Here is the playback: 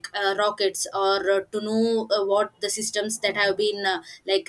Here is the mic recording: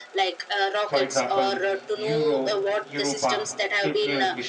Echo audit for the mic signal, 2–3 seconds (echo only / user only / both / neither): both